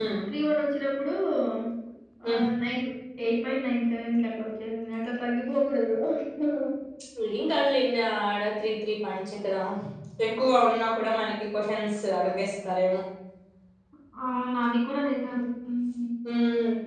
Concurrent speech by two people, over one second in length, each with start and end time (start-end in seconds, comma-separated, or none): none